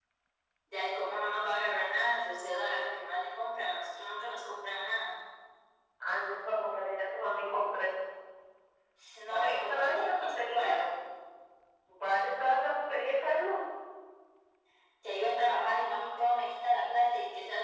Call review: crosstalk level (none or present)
present